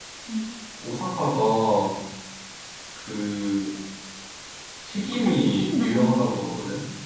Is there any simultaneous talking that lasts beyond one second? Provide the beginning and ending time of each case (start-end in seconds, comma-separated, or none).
5.2-6.5